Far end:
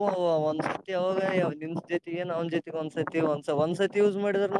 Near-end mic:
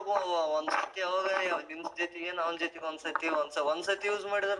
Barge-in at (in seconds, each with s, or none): none